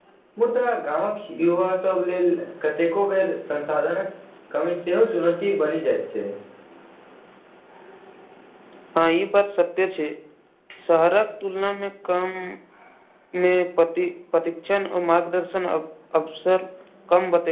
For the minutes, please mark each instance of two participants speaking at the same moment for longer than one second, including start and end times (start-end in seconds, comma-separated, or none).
none